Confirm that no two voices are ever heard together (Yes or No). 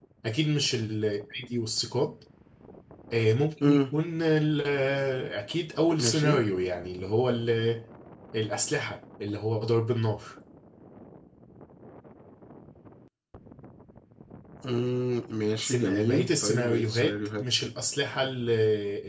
No